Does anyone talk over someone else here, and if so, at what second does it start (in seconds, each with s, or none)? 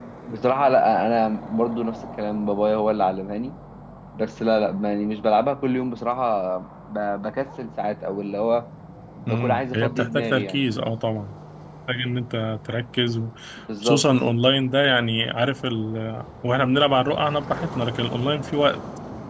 9.3 s